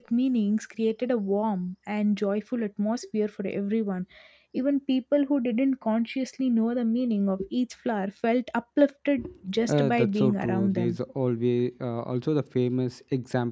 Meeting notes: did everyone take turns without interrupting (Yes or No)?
No